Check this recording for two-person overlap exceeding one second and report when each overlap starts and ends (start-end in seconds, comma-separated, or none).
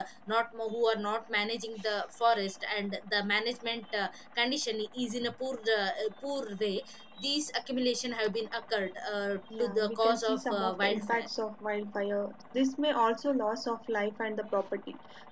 9.5-11.3